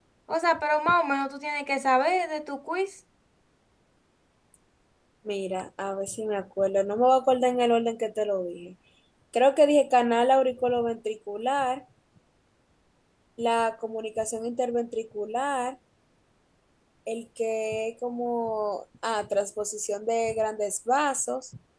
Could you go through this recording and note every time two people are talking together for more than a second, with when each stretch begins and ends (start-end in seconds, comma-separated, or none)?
none